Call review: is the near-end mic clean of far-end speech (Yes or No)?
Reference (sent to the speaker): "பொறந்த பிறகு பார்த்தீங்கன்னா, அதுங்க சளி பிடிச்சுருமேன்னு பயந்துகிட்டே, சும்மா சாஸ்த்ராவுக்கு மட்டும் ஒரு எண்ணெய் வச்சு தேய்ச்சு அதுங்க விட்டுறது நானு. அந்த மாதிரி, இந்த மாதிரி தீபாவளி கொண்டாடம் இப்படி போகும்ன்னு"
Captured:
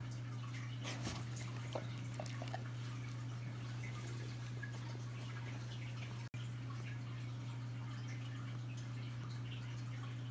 Yes